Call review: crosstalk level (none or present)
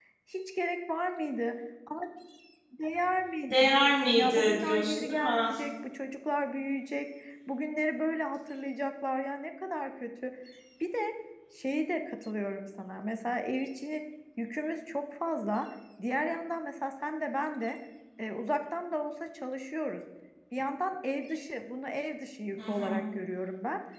present